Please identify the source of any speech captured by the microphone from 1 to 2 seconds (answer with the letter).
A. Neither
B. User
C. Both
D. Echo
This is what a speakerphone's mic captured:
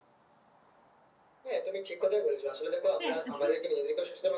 D